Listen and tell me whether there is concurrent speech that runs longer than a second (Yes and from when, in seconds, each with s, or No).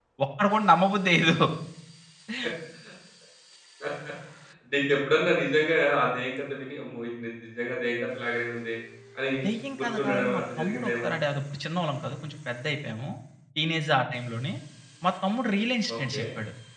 Yes, from 9.8 s